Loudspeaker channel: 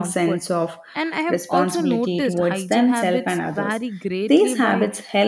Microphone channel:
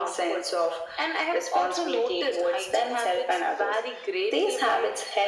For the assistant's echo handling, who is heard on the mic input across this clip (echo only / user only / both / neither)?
echo only